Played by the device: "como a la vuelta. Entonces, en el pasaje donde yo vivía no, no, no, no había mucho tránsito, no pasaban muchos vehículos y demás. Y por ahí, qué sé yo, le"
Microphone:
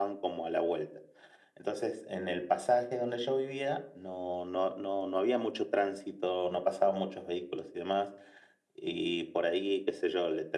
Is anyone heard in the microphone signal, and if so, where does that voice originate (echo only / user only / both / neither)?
echo only